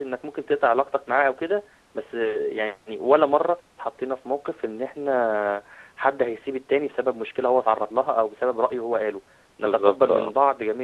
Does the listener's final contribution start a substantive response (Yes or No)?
No